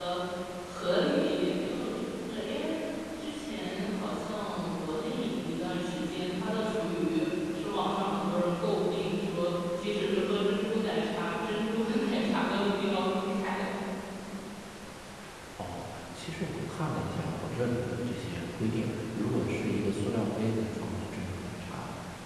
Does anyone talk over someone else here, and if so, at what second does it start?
none

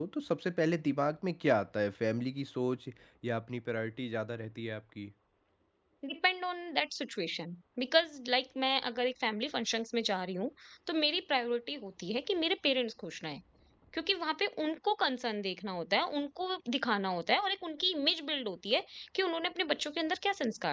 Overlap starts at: none

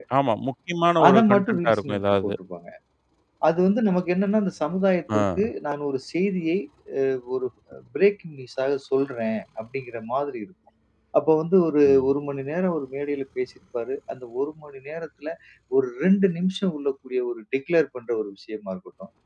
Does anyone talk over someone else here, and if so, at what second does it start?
1.0 s

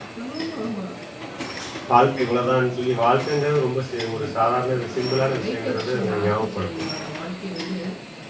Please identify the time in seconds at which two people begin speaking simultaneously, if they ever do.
4.1 s

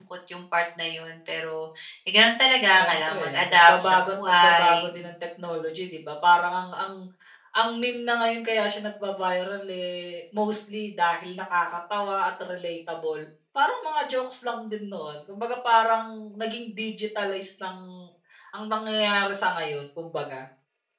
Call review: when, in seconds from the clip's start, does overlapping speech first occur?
2.8 s

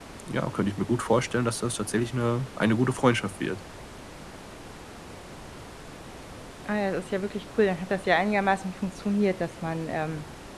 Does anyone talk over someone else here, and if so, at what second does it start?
none

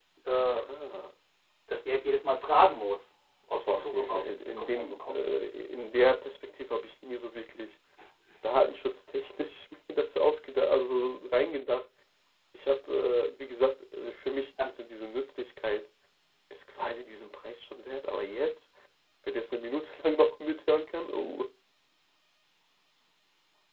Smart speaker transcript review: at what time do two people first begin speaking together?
3.7 s

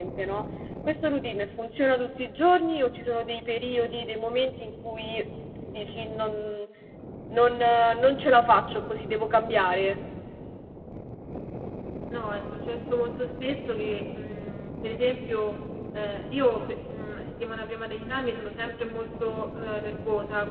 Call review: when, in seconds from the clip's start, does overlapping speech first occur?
none

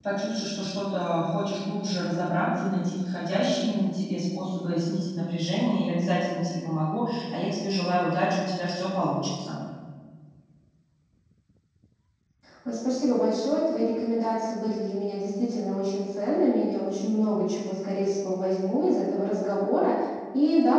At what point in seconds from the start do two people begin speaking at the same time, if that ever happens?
none

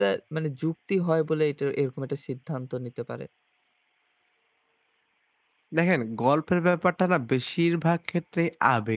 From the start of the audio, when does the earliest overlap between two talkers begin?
none

